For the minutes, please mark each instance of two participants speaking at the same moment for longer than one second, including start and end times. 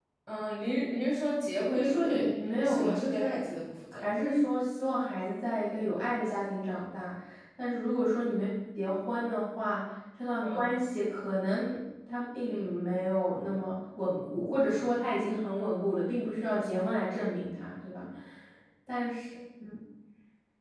1.7-3.5

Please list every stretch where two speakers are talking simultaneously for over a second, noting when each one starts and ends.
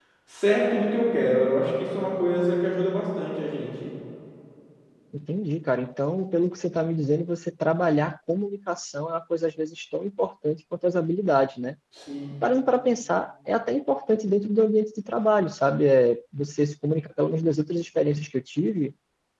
none

